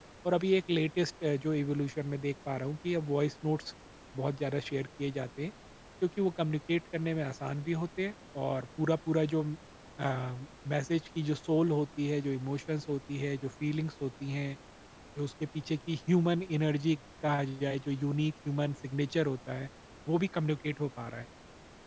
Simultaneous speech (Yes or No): No